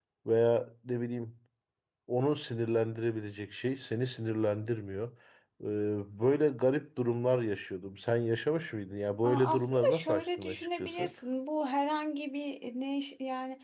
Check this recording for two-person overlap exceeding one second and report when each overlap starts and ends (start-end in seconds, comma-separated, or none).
9.2-11.1